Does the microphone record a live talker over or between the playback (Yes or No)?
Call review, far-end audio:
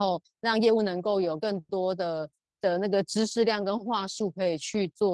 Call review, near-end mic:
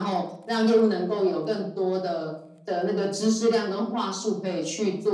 No